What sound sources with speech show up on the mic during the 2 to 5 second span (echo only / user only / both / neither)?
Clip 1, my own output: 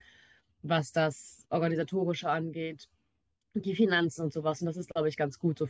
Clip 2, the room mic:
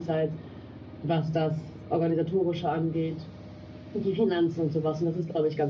echo only